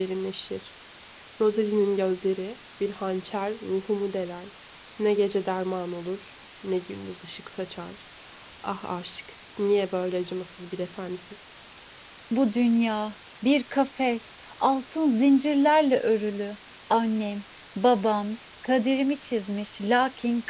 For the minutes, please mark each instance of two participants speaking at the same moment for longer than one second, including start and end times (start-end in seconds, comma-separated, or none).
none